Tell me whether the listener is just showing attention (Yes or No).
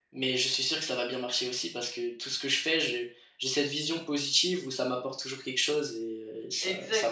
No